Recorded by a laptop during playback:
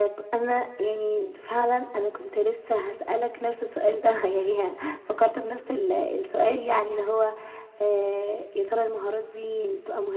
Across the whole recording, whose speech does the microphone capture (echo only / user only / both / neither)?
echo only